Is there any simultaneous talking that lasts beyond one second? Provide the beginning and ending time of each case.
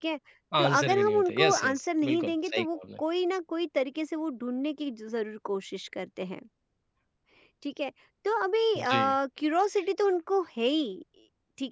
0.6-2.8

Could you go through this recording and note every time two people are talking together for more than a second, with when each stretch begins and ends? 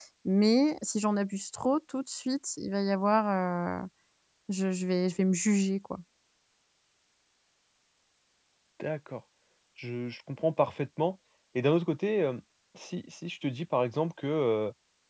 none

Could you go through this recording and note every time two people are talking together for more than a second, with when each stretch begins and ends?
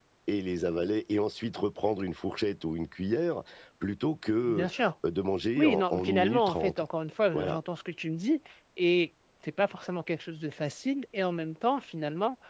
5.6-6.8

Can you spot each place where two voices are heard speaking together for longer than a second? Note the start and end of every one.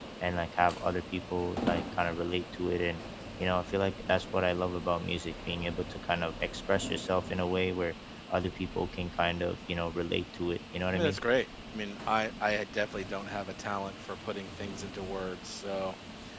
none

